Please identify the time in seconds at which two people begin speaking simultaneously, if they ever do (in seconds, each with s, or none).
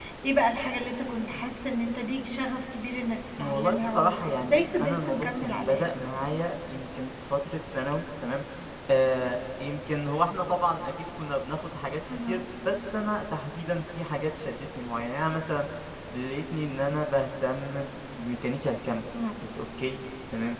3.4 s